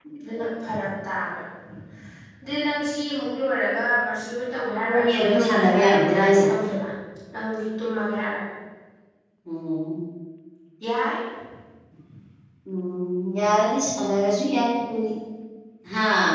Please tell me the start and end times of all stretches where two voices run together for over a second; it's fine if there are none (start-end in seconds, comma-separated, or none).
4.9-6.5